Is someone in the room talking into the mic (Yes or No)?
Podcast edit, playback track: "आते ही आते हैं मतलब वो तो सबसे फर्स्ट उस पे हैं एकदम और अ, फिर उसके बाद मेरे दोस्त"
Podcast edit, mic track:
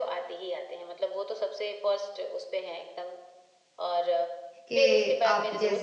Yes